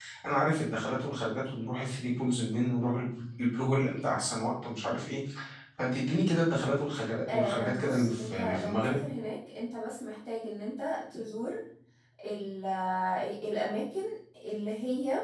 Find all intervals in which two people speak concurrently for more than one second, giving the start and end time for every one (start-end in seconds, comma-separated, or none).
7.3-8.9